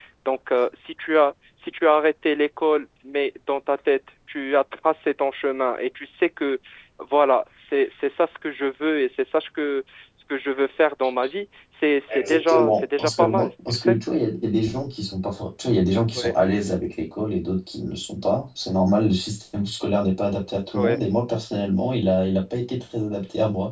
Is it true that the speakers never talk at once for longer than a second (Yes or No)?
No